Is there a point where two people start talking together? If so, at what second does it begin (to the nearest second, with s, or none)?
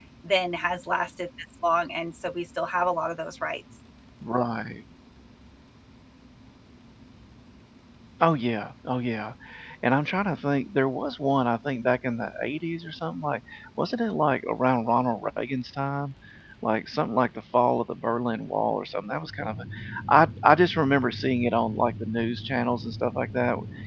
none